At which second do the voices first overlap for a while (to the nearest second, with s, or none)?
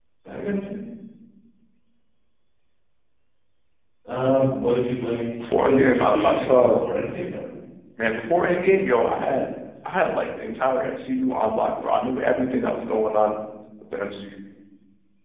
5 s